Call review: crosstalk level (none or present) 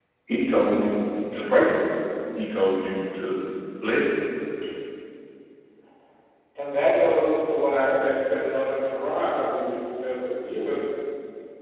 none